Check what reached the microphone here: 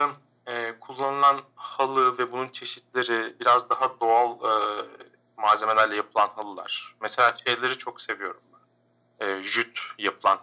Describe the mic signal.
echo only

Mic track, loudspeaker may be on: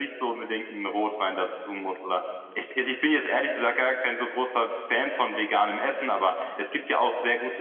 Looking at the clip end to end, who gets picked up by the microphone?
echo only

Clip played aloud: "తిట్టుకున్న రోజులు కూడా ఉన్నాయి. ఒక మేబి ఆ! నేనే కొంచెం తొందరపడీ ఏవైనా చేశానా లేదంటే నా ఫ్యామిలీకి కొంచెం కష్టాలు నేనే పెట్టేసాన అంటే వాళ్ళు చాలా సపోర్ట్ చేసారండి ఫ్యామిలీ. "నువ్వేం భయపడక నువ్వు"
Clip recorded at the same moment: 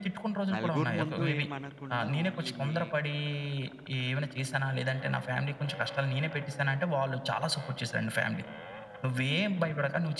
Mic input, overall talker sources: both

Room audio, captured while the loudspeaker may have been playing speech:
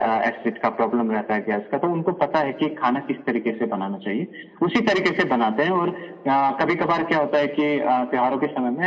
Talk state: echo only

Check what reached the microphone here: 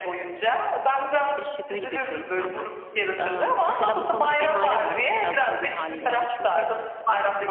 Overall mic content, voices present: both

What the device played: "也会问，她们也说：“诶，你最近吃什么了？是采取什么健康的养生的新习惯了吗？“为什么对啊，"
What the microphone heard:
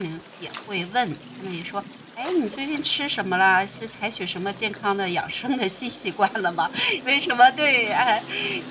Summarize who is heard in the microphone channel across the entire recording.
echo only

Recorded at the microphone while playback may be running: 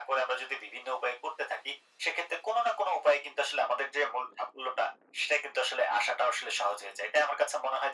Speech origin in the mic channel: echo only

